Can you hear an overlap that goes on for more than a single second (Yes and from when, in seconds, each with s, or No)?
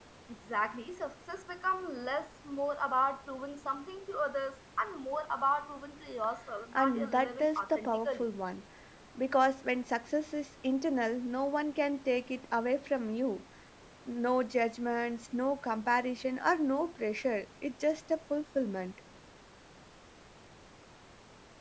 Yes, from 6.7 s